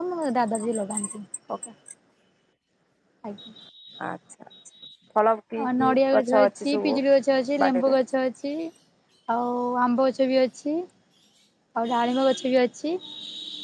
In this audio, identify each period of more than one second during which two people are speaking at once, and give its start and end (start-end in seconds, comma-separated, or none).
5.6-7.0